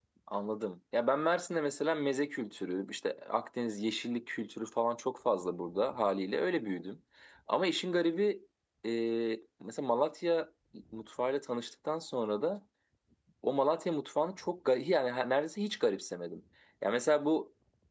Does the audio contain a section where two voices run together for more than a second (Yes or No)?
No